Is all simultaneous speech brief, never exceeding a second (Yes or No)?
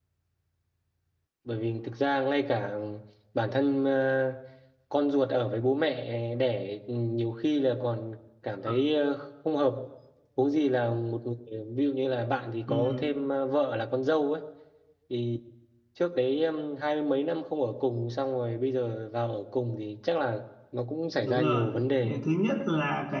Yes